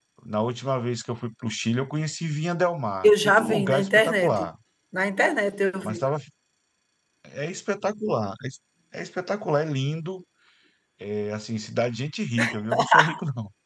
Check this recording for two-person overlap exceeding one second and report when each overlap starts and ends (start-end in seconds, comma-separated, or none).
3.0-4.4